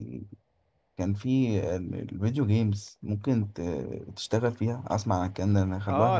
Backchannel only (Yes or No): No